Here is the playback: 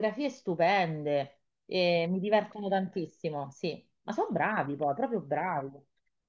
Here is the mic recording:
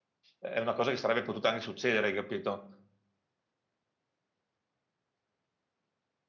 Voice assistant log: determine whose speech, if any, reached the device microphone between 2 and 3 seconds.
user only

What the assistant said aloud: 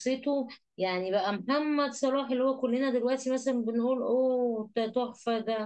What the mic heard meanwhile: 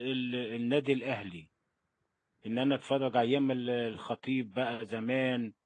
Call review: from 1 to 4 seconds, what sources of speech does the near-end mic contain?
user only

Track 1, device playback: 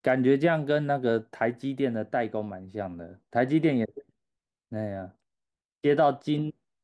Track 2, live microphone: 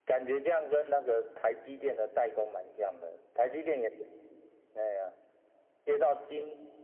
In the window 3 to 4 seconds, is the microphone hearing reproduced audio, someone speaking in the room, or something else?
echo only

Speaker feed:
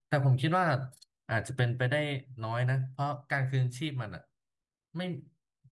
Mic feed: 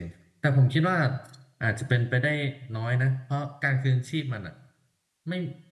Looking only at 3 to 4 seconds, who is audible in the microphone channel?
echo only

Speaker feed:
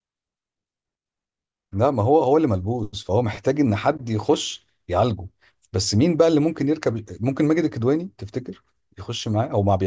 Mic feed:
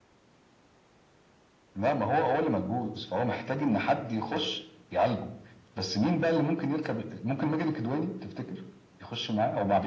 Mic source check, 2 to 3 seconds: echo only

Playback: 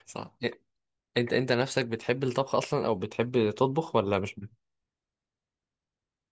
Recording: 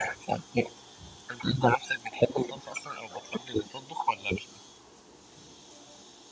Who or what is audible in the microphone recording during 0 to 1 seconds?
echo only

